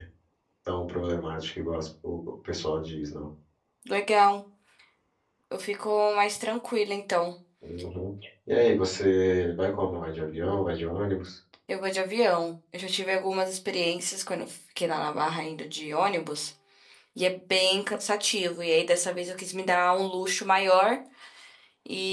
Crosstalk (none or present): none